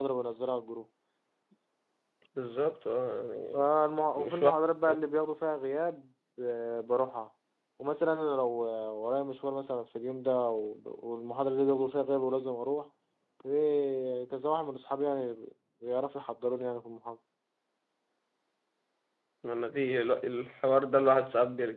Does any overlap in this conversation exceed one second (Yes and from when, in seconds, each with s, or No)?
No